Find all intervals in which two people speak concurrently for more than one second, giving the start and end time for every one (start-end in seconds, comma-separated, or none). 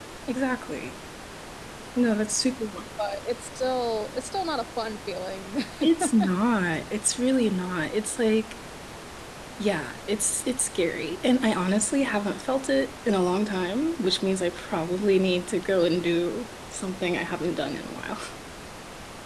none